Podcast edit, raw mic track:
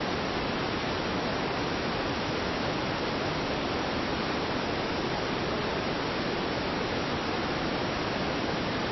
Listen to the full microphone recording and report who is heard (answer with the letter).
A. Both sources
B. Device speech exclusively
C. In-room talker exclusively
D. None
D